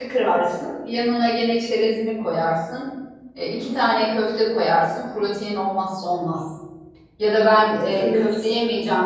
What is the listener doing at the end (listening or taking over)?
listening